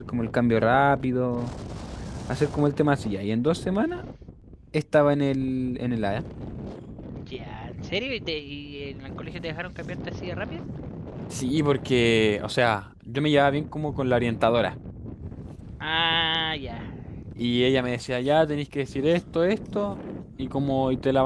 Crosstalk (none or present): none